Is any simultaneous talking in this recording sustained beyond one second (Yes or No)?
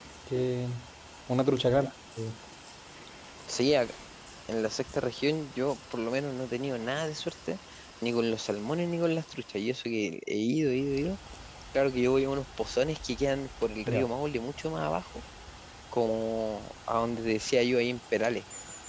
No